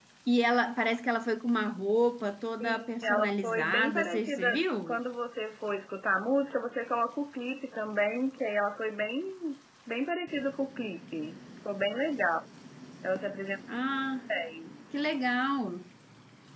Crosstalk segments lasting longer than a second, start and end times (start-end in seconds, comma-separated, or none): 2.6-5.0